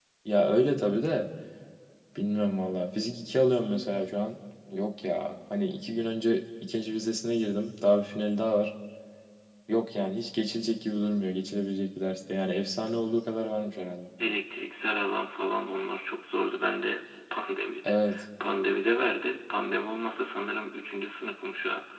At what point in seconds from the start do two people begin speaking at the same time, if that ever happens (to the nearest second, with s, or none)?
none